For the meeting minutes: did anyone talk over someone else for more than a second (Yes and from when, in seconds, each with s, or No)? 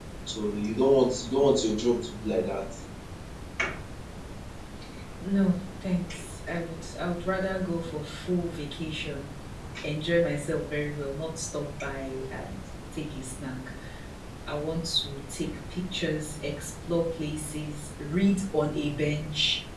No